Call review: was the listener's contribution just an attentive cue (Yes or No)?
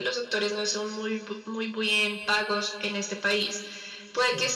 Yes